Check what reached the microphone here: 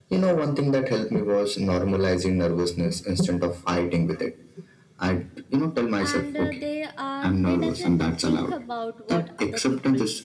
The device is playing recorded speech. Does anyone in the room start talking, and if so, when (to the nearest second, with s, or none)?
6 s